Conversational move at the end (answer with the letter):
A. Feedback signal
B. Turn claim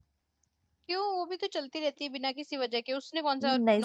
B